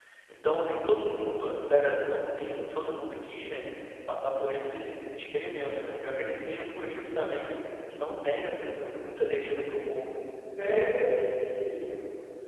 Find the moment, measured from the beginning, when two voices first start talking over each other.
none

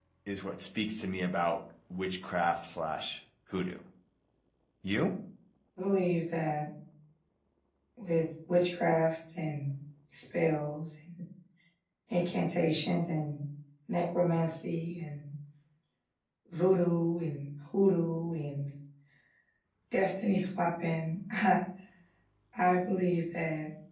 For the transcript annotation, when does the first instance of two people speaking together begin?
none

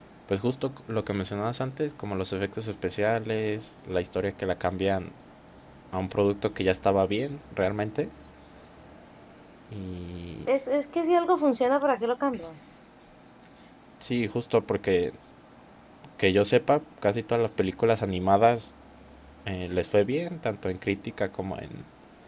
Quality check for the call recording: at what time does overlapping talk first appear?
none

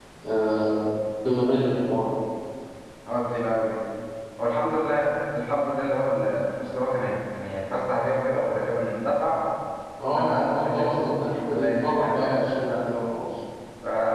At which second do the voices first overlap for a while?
10.1 s

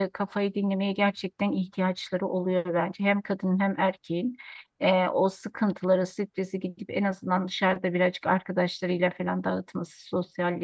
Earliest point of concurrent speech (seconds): none

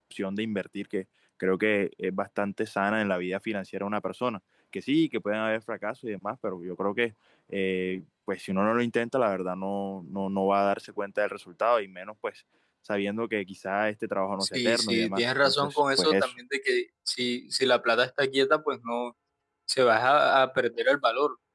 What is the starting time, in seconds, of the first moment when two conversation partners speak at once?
14.4 s

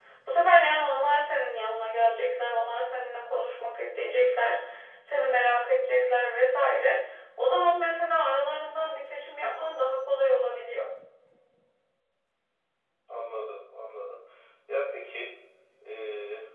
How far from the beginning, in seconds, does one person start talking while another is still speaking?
none

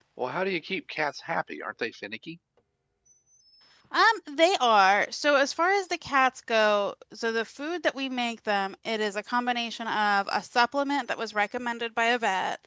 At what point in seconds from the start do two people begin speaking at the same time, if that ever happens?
none

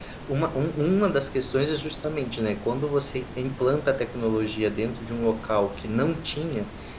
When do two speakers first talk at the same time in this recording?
none

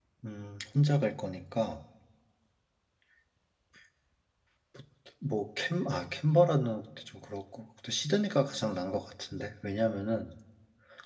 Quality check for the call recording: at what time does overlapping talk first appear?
none

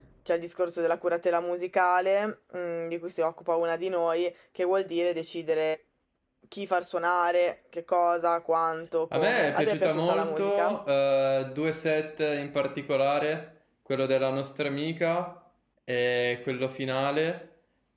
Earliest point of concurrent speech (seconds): 9.1 s

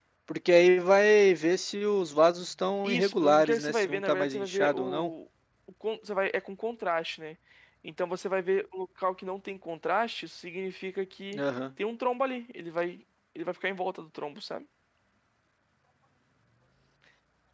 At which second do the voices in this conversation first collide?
2.8 s

